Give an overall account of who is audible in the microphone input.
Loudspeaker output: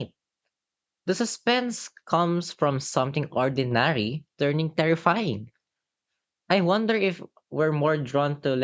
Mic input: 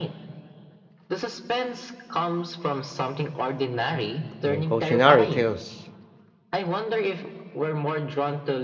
both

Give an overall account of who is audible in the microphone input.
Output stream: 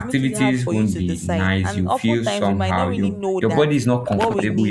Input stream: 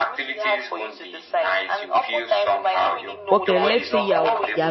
both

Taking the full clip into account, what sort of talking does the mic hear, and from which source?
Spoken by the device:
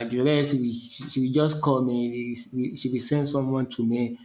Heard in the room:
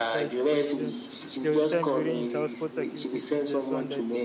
both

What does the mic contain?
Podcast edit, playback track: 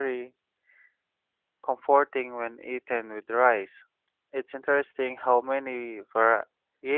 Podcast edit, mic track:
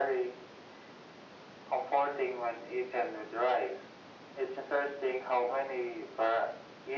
echo only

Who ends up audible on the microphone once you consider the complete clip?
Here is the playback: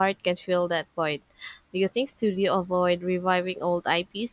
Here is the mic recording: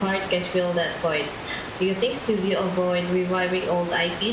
echo only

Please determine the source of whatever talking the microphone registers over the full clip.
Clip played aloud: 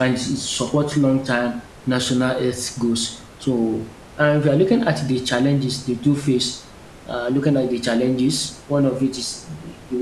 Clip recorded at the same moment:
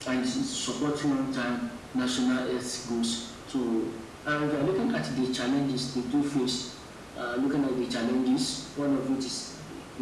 echo only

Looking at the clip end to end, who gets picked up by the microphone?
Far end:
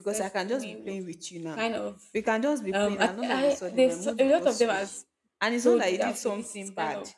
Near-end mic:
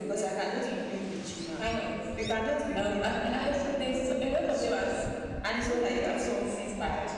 echo only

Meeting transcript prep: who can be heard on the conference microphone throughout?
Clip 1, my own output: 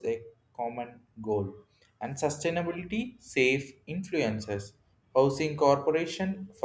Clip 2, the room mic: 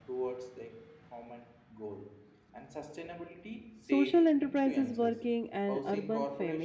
both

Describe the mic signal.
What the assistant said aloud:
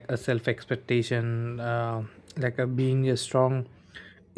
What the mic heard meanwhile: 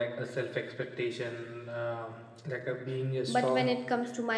both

